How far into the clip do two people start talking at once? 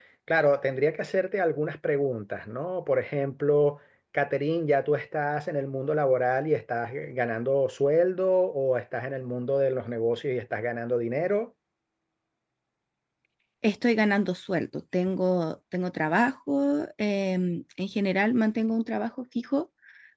none

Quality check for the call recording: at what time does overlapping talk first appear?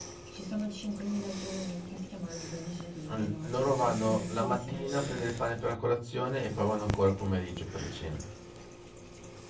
3.1 s

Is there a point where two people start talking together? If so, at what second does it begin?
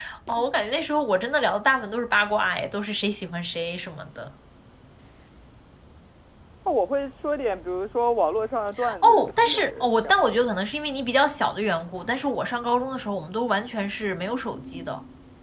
8.8 s

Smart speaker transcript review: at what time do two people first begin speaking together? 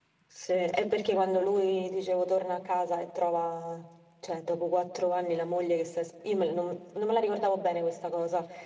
none

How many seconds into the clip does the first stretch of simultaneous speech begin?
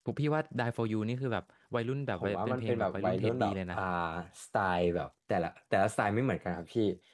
2.2 s

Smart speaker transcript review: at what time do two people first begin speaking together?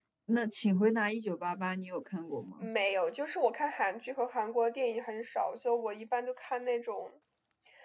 none

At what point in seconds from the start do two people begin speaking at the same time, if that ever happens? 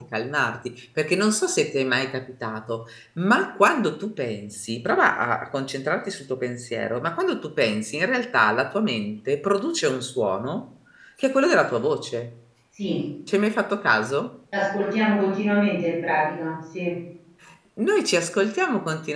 none

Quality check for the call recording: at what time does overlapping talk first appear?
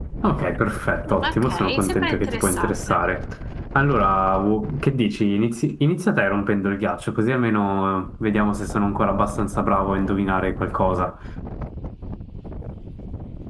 1.1 s

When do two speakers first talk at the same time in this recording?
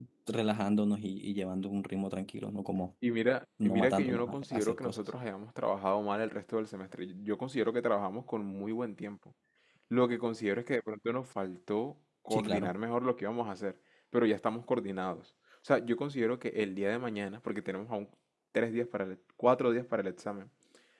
3.6 s

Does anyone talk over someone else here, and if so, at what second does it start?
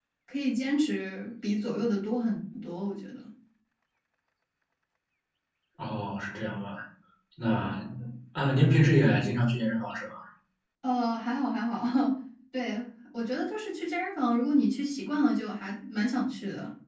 none

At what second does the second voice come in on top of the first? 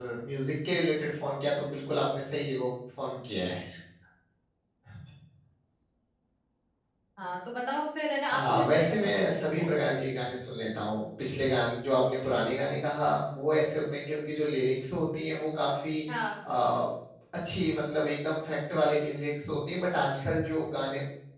8.3 s

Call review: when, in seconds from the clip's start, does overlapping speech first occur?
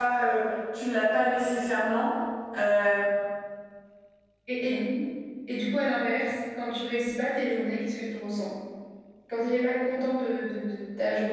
none

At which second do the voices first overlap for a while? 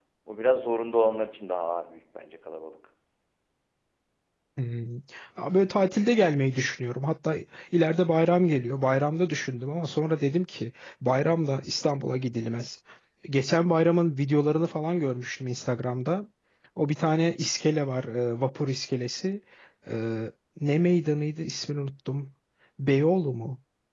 none

